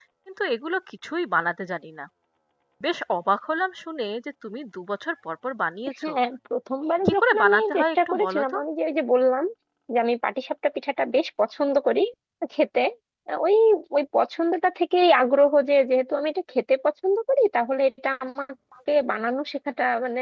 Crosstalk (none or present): present